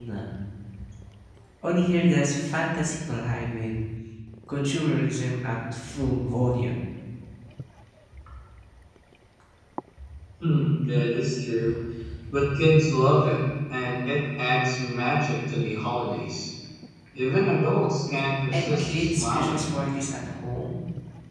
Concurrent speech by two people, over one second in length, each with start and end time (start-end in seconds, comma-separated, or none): 18.5-19.9